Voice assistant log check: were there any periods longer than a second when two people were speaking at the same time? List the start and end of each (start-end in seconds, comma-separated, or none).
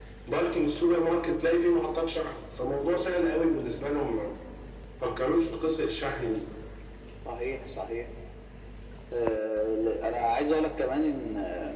none